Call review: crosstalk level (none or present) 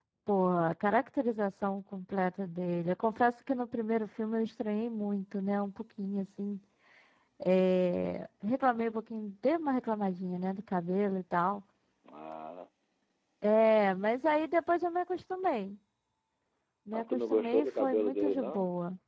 present